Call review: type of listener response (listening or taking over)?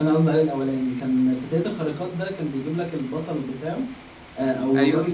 listening